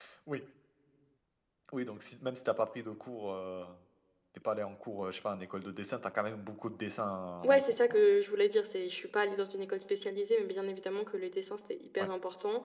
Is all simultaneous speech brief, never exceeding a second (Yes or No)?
Yes